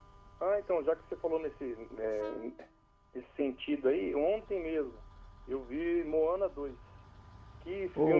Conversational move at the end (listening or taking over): listening